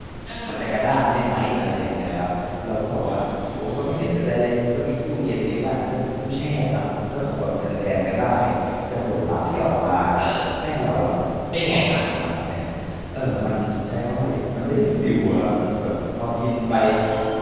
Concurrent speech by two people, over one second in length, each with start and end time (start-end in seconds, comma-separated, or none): none